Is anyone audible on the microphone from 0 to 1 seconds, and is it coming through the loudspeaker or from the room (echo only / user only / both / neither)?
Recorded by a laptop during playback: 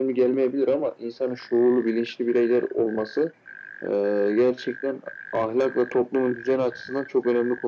echo only